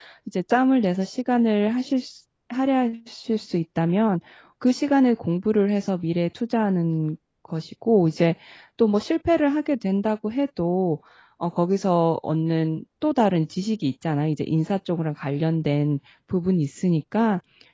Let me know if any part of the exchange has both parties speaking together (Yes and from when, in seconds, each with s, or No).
No